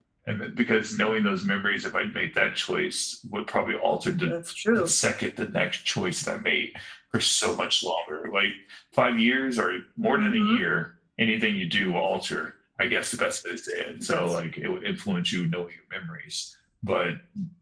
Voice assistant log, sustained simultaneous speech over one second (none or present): none